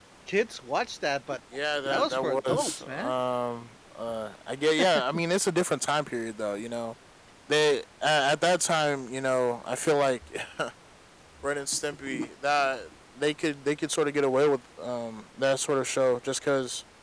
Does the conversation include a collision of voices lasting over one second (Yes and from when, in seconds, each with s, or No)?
Yes, from 1.7 s